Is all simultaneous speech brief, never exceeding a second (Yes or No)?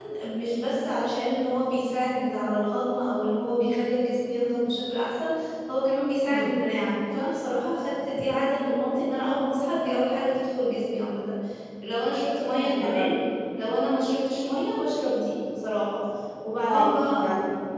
Yes